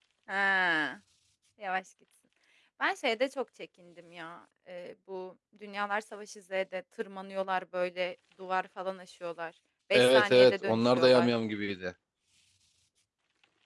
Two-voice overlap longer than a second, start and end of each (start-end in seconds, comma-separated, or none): 9.9-11.3